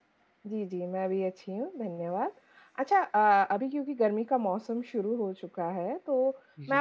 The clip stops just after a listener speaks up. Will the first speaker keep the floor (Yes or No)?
Yes